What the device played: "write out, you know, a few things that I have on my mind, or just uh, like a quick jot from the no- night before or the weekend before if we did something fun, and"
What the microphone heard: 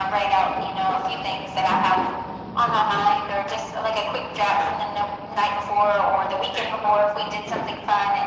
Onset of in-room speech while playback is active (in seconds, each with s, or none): none